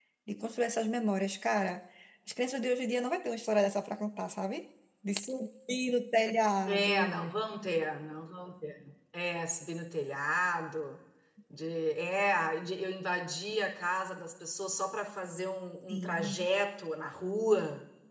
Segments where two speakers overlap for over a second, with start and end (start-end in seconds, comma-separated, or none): none